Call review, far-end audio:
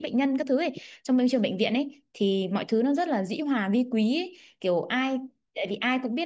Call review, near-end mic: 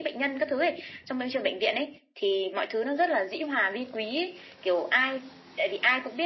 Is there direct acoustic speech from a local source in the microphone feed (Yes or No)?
No